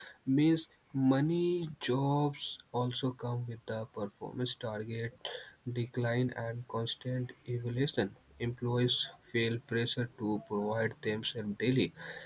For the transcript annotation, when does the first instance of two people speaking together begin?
none

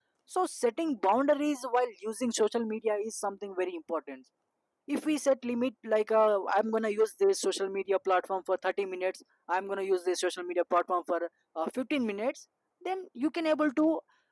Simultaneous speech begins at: none

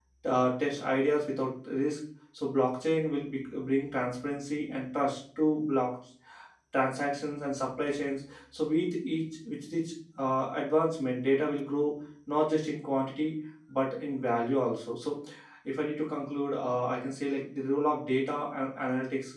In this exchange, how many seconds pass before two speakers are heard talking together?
none

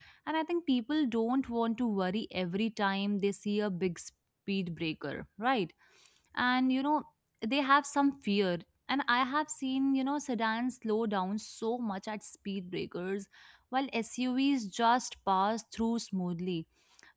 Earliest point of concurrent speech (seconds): none

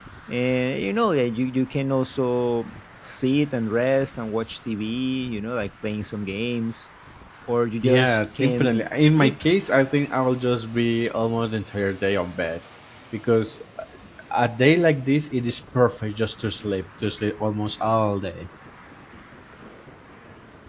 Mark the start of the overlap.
8 s

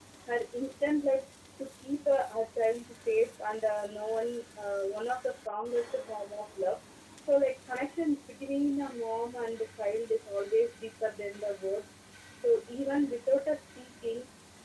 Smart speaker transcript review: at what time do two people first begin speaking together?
none

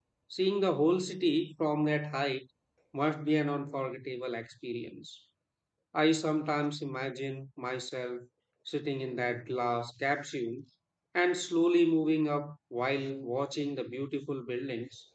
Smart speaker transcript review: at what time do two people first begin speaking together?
none

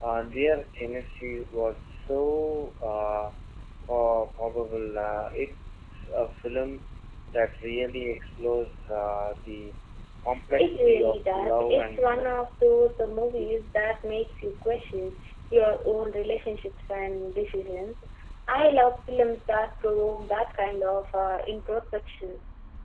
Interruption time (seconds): 11 s

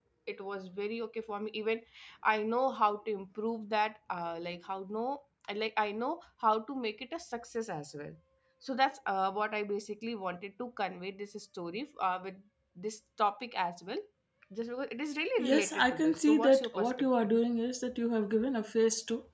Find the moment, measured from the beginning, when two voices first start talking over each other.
15 s

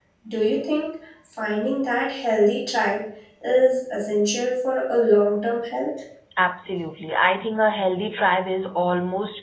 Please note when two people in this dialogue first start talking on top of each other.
none

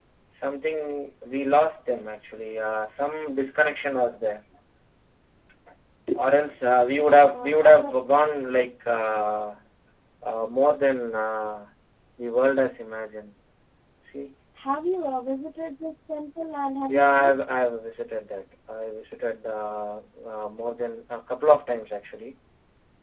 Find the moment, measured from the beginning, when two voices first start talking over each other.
7 s

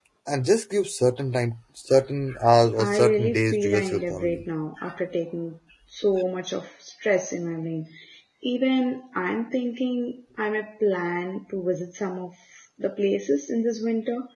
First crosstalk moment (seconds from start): 3 s

